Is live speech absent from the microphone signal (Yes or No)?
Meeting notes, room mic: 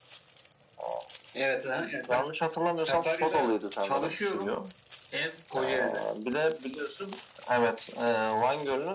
Yes